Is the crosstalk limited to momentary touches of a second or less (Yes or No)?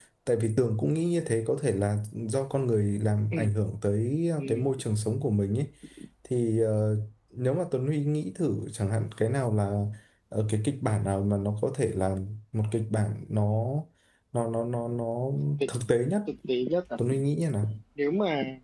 Yes